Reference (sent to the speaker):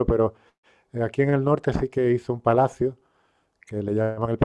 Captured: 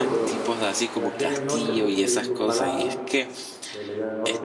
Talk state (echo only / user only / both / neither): both